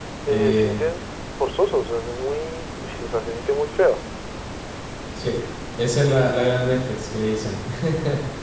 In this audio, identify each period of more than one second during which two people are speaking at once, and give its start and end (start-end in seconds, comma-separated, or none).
none